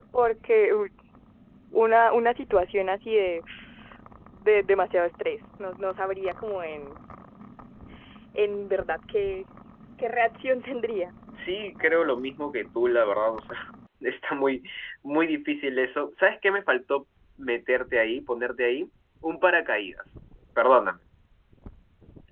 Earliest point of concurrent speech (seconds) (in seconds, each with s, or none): none